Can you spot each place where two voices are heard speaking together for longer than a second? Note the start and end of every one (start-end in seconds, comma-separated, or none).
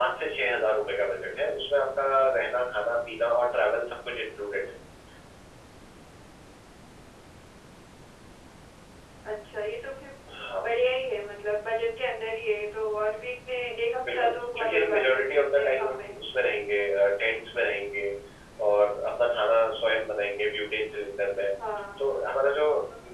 14.1-16.1